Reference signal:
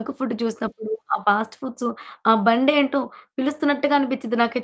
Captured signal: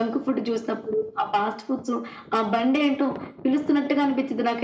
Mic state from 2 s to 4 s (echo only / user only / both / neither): echo only